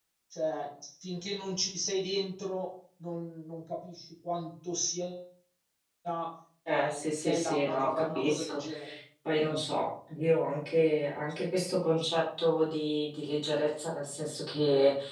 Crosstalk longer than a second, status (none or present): present